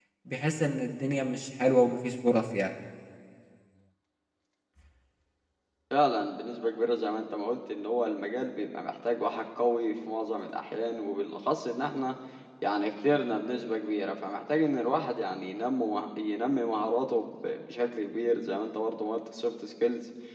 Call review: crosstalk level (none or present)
none